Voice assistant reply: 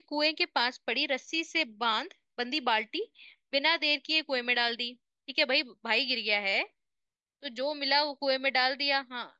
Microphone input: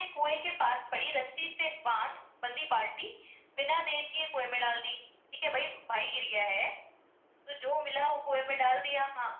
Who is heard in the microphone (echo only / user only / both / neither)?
echo only